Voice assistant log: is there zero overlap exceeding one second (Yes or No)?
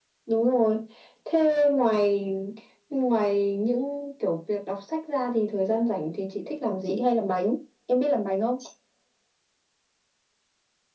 Yes